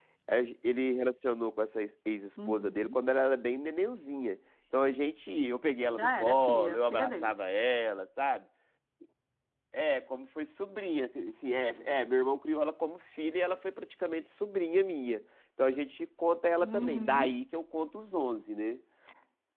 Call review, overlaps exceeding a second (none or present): present